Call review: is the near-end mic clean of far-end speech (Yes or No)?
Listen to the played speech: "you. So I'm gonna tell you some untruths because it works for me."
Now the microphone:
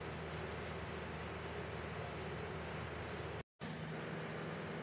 Yes